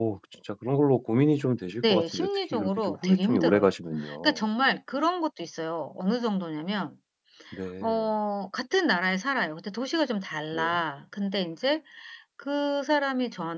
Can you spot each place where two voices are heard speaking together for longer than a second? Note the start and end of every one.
1.9-3.7

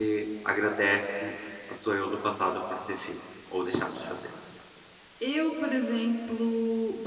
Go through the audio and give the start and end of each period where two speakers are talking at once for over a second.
none

